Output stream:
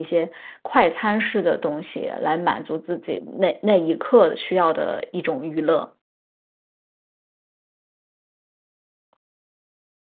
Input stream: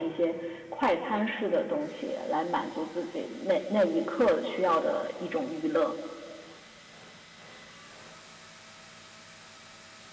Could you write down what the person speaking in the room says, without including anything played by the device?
none

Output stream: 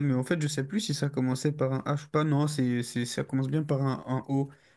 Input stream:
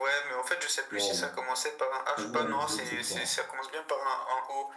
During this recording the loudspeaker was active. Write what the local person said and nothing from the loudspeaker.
waouh, j'avoue là, le Z, c'est fort.

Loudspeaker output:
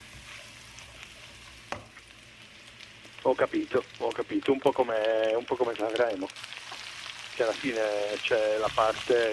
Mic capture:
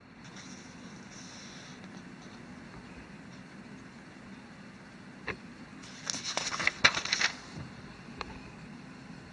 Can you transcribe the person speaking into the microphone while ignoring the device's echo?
none

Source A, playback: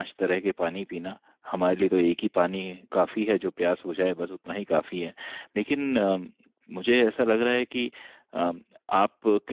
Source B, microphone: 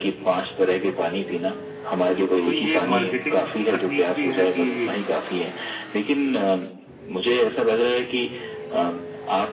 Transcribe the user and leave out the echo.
तो ये एक मार्केटिंग तकनीक भी है कि

